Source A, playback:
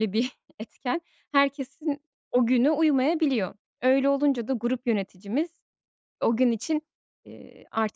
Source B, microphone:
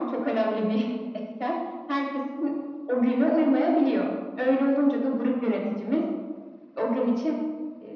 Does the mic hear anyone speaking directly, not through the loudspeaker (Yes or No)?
No